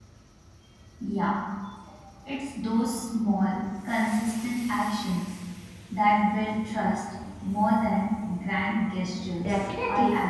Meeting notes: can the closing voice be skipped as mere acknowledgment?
No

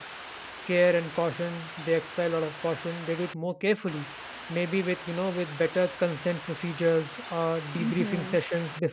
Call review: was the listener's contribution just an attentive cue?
Yes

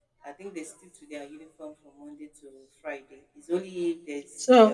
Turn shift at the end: Yes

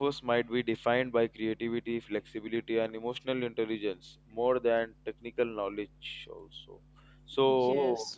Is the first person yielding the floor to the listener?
No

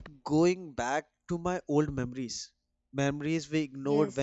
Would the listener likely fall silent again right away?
Yes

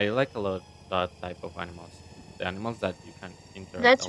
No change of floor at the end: No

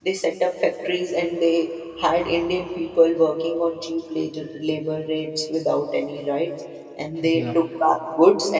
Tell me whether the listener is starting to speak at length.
No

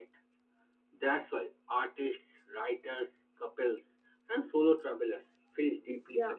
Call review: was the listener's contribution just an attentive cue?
No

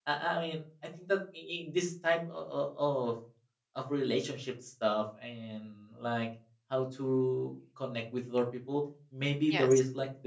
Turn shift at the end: No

